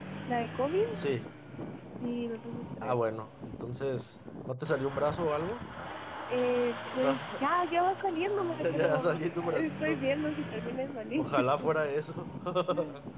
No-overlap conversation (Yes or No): No